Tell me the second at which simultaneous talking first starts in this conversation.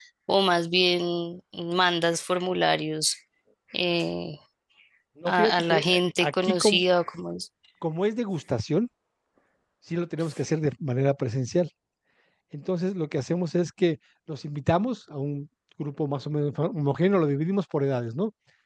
5.3 s

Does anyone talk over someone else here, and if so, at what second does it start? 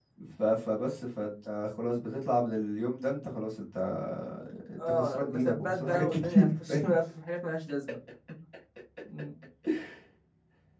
4.9 s

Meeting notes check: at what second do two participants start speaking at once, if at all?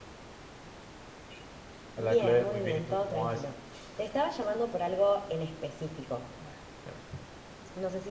2.0 s

